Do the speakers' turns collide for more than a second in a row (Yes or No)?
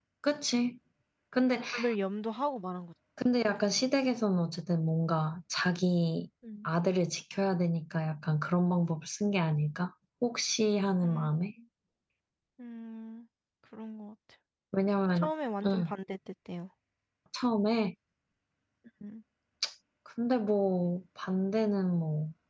No